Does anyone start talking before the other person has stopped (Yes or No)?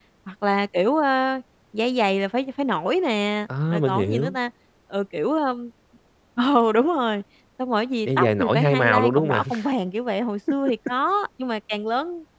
Yes